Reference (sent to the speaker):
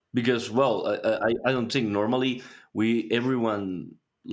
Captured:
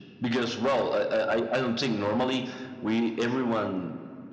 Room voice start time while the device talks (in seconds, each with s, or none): none